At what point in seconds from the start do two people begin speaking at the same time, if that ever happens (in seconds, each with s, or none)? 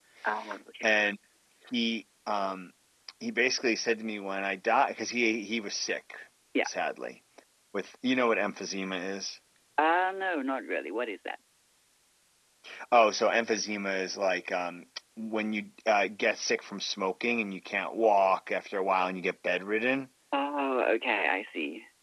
none